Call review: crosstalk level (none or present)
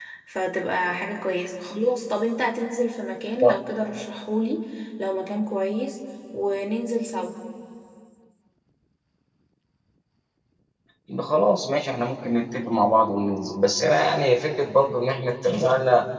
none